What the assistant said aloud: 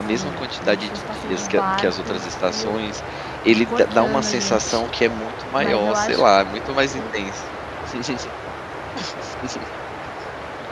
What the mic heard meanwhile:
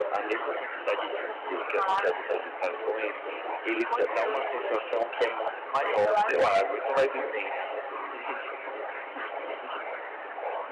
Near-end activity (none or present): none